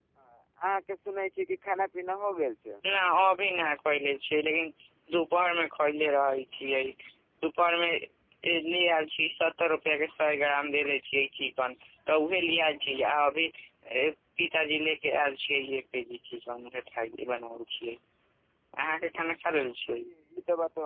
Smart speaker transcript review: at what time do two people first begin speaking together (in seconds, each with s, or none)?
none